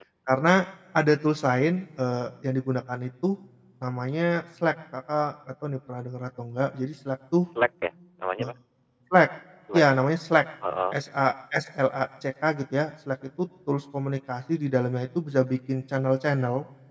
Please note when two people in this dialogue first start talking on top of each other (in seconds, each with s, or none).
none